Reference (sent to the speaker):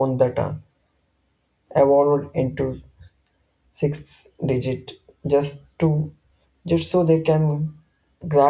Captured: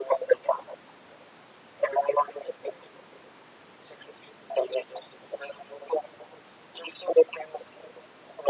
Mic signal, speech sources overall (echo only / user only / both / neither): echo only